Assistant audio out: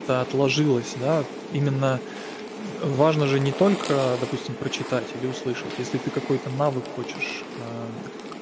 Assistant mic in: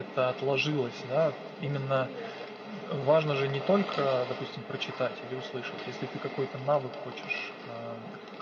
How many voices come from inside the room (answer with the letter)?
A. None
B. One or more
B